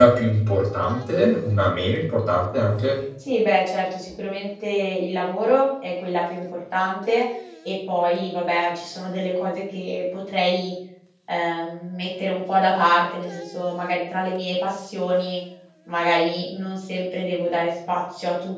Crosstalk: none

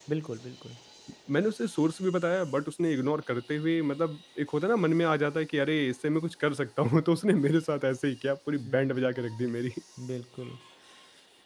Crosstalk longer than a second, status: none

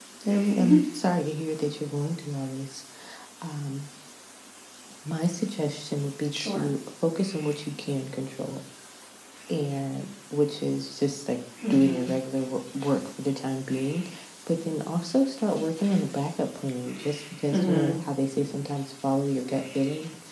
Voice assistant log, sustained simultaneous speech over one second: none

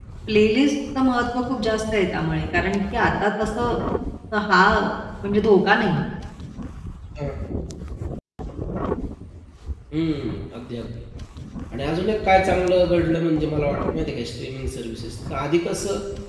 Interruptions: none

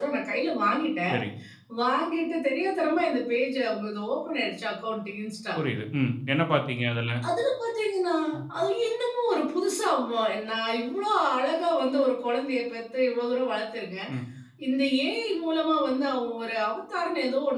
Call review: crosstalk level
none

